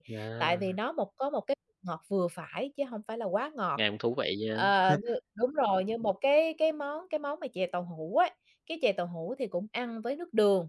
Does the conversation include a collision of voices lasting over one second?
No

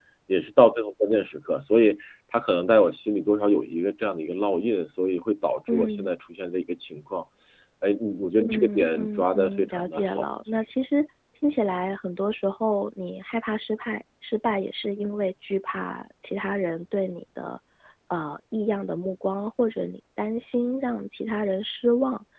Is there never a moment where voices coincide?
No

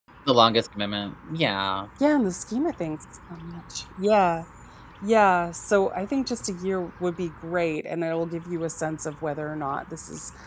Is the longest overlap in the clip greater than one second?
No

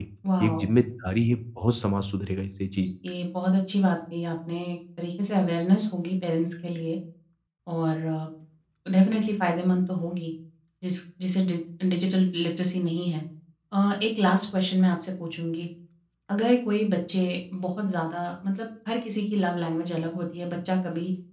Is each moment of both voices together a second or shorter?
Yes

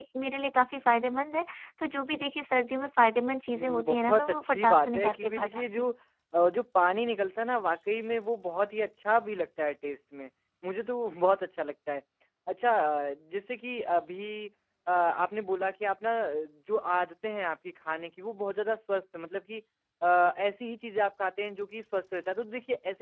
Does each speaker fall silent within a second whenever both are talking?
No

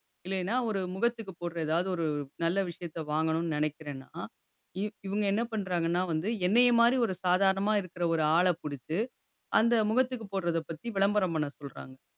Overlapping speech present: No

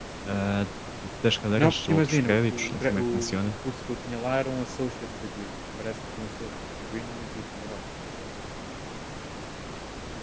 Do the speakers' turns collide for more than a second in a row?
Yes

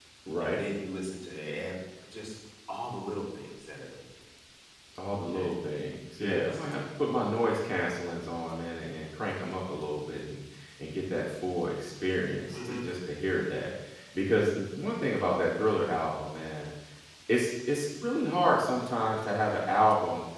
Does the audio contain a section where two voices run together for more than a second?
No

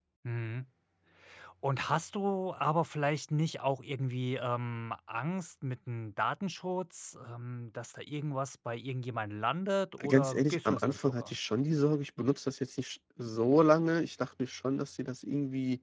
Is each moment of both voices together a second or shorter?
No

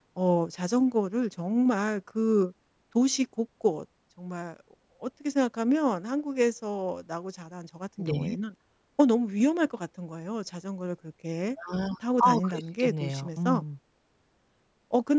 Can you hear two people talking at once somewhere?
Yes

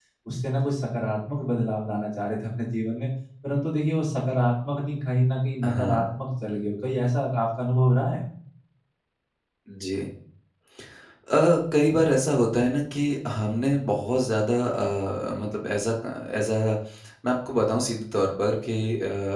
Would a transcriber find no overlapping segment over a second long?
Yes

